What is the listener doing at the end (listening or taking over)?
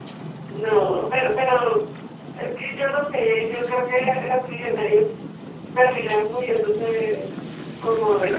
taking over